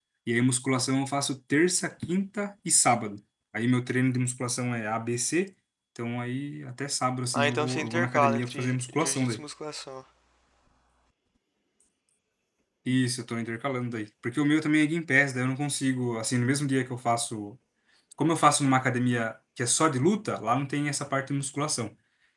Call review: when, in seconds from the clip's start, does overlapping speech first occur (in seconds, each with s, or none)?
7.3 s